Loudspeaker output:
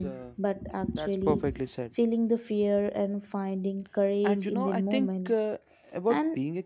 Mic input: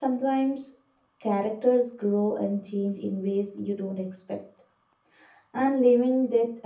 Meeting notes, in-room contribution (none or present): present